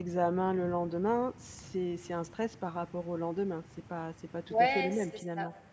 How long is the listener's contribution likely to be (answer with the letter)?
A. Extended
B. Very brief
A